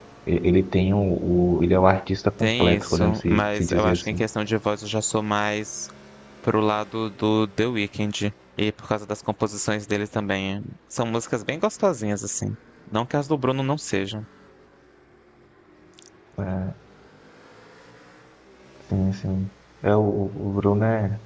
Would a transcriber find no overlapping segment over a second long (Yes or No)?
No